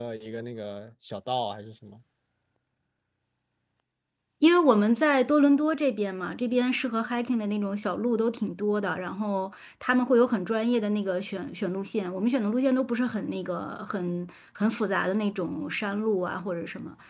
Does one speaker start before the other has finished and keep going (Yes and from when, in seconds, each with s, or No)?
No